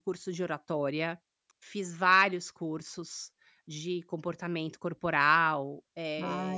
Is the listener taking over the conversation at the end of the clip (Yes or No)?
Yes